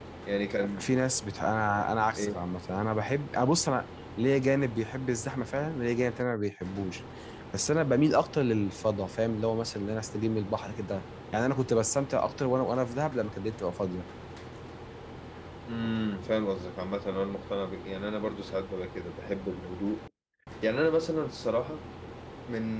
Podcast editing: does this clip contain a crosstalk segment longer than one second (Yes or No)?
No